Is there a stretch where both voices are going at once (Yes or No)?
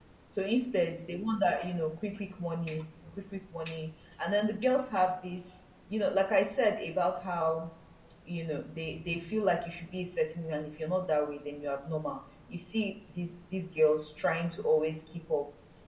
No